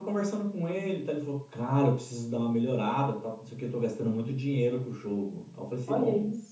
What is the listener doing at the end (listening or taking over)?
listening